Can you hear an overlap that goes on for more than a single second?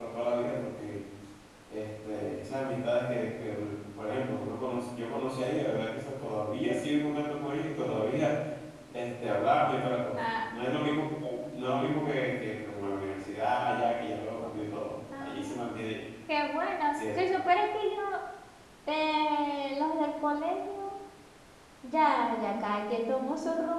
No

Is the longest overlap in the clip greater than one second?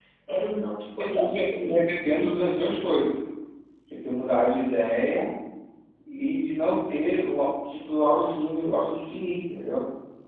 Yes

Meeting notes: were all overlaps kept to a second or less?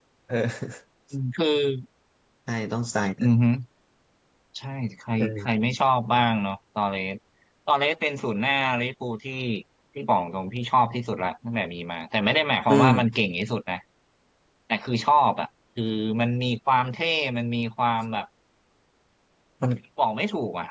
Yes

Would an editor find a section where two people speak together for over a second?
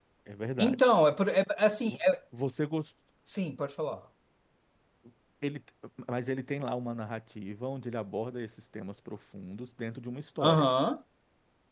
No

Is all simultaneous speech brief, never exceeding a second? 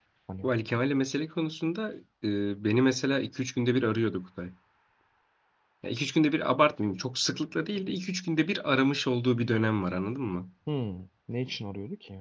Yes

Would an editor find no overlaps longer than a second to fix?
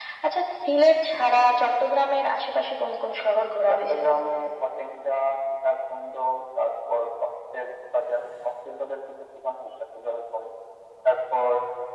Yes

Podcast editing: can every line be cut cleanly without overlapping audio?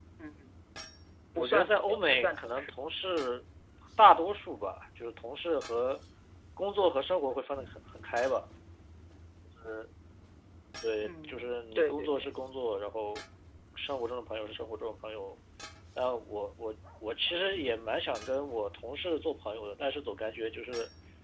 No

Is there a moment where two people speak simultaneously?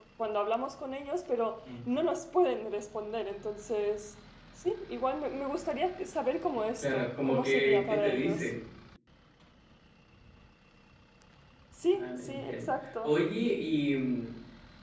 Yes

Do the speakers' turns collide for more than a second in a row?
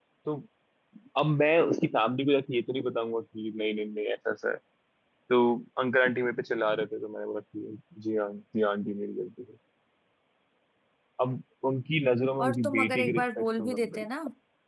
Yes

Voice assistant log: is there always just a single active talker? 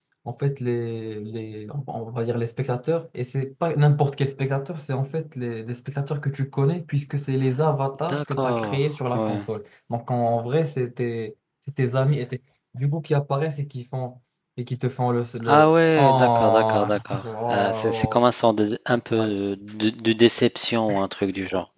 No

